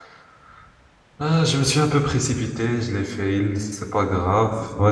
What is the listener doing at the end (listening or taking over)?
listening